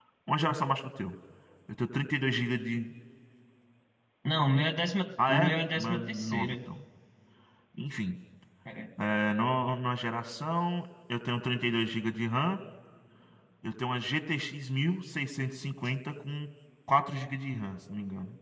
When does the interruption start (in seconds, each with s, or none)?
5.2 s